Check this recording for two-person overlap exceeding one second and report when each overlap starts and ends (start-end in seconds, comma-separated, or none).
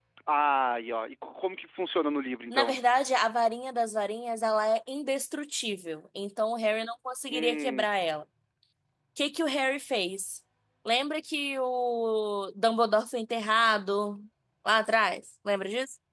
none